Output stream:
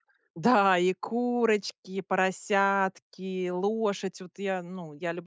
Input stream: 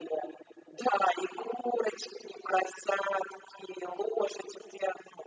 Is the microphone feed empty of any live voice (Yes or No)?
Yes